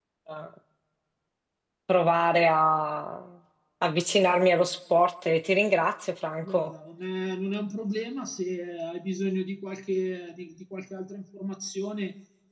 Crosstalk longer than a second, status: none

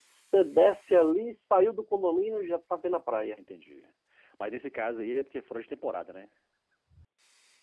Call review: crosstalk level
none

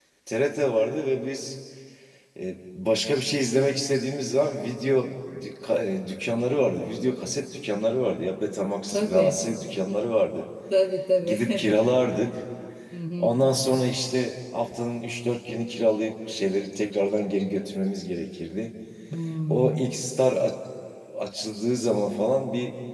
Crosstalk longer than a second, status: none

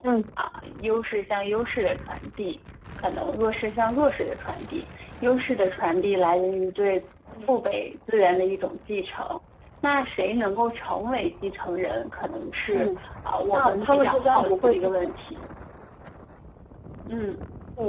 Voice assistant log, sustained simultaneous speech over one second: present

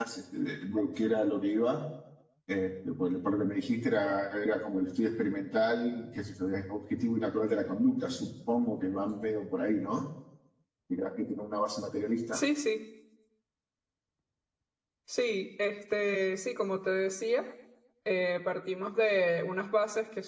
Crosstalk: none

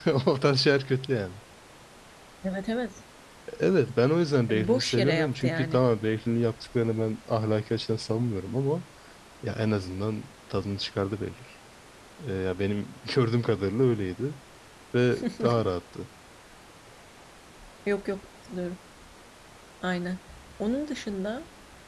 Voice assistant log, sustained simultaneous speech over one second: present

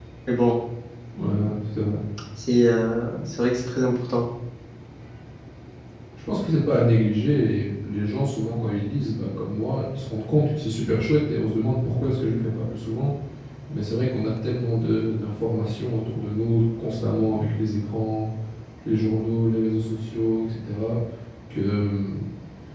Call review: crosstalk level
none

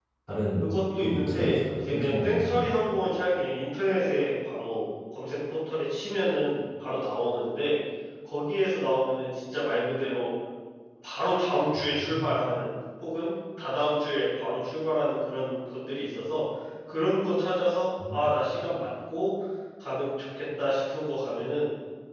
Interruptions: present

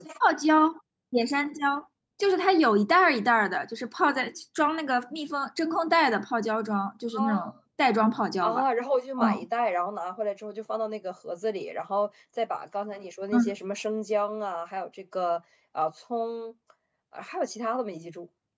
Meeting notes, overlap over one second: none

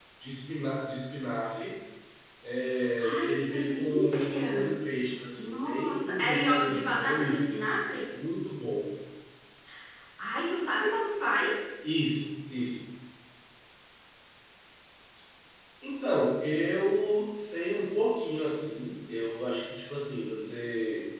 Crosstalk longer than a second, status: present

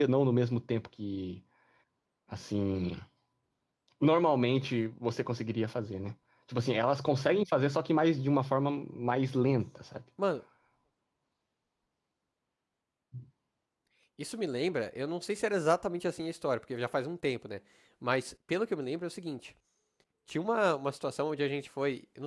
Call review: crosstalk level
none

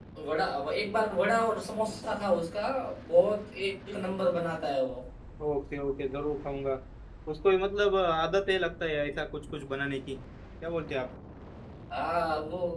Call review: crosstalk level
none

